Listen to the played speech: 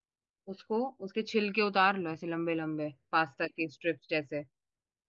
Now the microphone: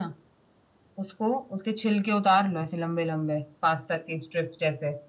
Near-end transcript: none

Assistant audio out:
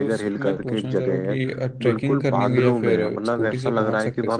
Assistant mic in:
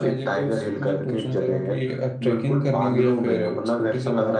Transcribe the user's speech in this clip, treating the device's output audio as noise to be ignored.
none

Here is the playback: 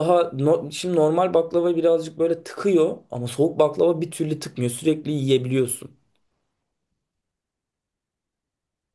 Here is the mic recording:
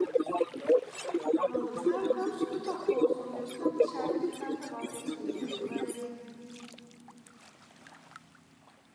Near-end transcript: Anladım. Sen hem sütlü tatlı olsun diyorsun hem de şerbetliden de vazgeçmeyeyim diyorsun. Böyle bir

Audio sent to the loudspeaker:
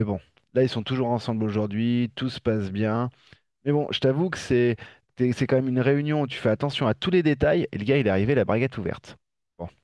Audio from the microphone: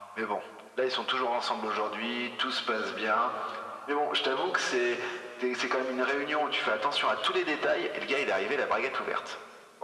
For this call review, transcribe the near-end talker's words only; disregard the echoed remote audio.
none

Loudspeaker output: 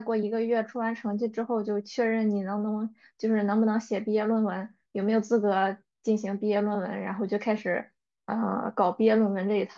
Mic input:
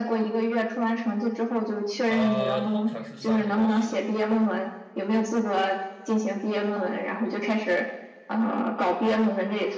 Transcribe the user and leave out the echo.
呃，通常是三年到十年，

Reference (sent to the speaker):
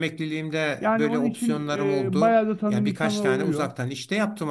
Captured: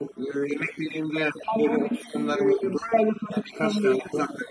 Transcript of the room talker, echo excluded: none

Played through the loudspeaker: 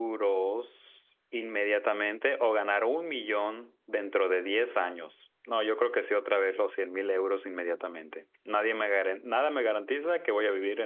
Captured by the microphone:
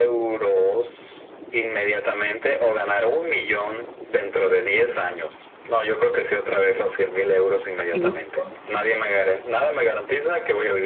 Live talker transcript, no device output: y mis cosas.

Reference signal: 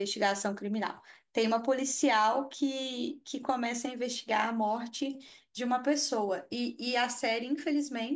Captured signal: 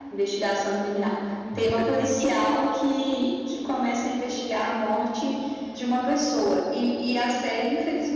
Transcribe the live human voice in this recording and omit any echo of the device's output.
Infelizmente.

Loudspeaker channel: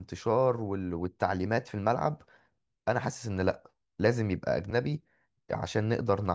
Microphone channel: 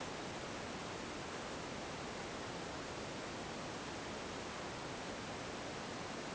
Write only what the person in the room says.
none

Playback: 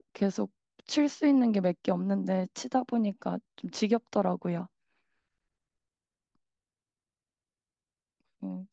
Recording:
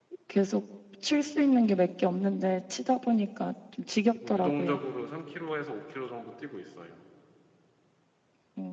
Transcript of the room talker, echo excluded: 조금 유동적으로 3km에서 5km 정도 뛰고 있어요.

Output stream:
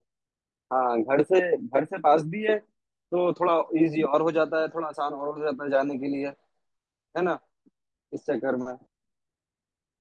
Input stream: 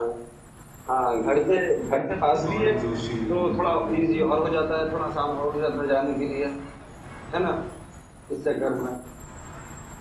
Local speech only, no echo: सौरव जोशी करके एक लोग

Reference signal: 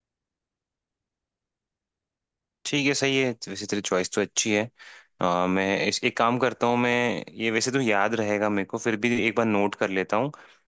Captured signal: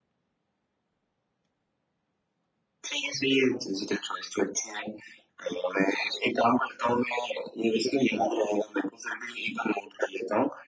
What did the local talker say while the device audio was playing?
none

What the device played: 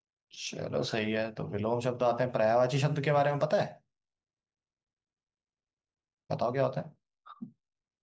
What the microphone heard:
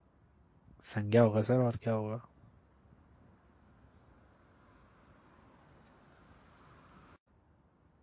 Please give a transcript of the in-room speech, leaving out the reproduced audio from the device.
संज्ञा होगा सर और क्या होगा

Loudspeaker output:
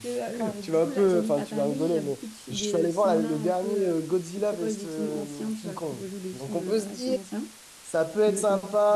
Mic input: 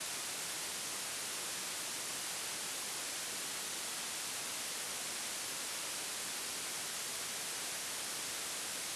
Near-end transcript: none

